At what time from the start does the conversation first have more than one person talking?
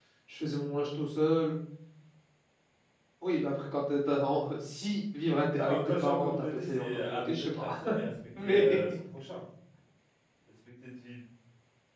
6 s

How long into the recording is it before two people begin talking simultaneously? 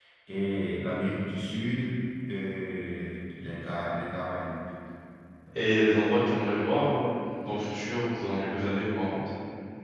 none

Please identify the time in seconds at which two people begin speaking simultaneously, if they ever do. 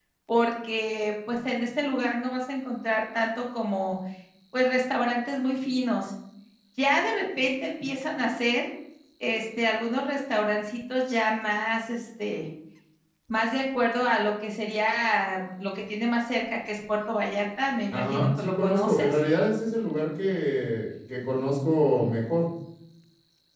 18 s

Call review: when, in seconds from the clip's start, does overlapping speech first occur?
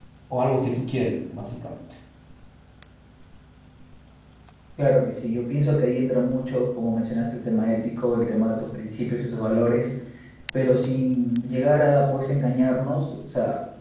none

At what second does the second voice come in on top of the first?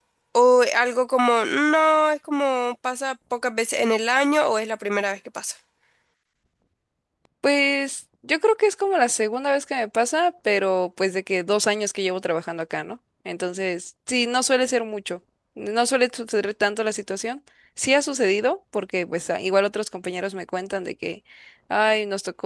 none

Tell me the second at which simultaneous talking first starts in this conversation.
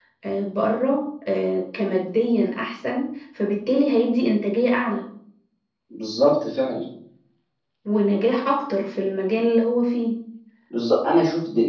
none

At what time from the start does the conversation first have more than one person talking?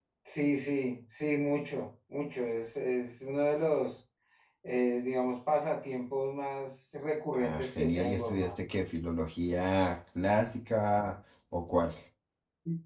7 s

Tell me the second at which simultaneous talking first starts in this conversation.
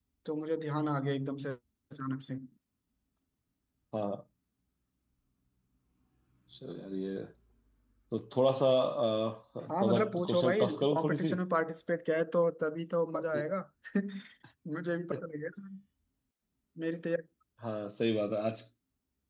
10 s

